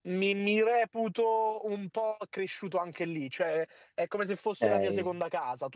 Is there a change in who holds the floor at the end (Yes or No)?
No